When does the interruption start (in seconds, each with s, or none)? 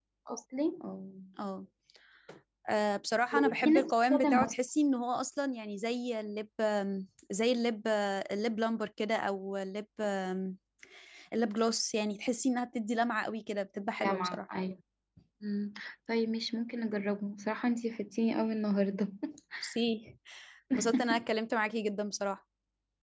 3.3 s